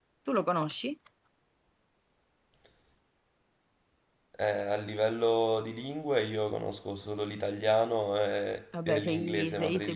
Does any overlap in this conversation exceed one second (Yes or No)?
Yes